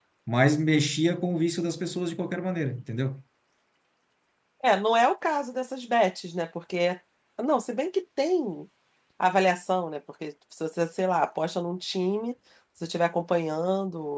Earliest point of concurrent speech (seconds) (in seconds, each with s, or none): none